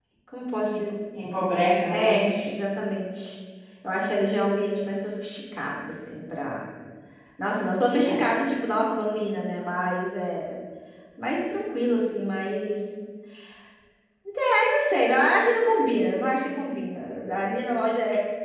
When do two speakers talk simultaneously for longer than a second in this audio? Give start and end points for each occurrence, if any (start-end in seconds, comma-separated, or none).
none